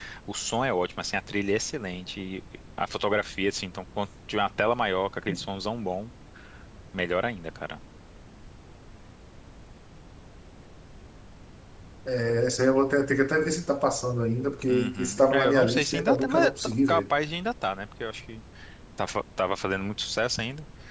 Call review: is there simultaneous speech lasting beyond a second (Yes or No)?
Yes